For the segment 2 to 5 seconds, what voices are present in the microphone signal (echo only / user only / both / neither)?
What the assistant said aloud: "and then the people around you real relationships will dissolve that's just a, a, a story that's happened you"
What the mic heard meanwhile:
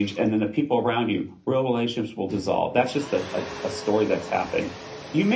echo only